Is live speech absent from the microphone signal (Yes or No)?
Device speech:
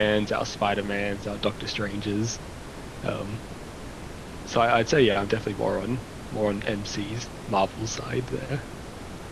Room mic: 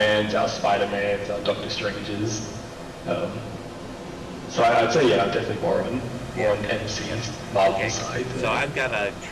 No